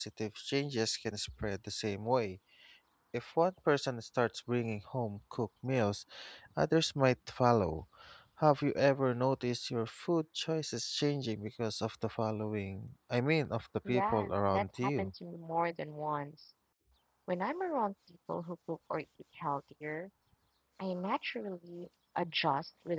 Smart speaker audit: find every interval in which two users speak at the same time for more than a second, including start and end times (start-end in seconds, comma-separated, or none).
13.9-15.1